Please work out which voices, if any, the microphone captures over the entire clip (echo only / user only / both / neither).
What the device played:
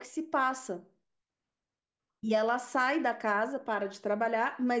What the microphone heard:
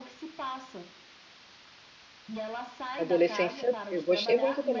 both